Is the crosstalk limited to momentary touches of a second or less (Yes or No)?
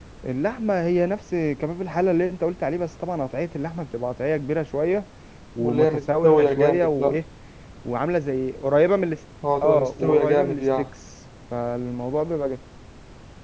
No